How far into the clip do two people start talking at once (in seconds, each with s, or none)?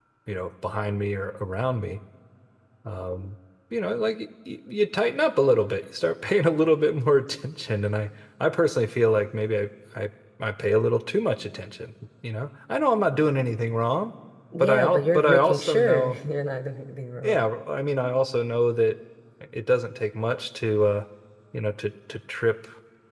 14.6 s